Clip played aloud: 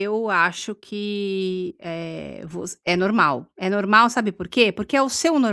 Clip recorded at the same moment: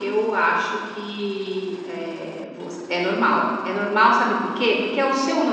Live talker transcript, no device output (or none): none